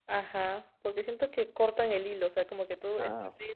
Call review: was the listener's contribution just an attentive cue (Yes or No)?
Yes